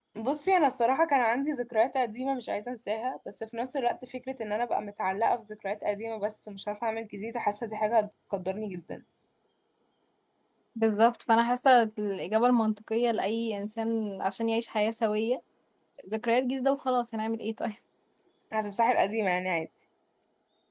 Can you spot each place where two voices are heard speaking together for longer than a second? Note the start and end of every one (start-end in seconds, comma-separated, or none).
none